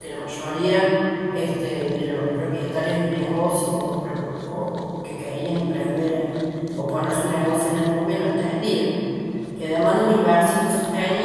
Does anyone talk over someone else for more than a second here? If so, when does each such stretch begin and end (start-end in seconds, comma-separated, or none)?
none